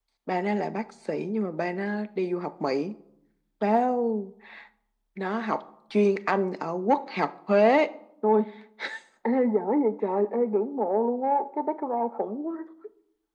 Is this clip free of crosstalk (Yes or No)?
Yes